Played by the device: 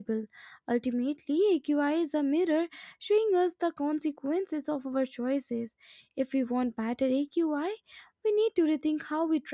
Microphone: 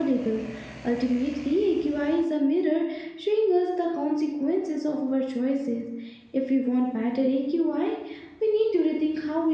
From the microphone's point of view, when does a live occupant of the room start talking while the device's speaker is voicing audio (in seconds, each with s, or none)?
none